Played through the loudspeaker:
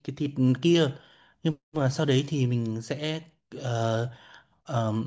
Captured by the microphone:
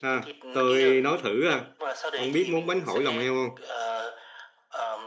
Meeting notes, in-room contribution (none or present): present